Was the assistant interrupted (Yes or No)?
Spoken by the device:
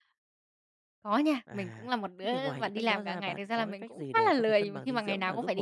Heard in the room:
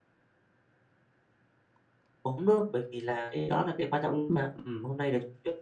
Yes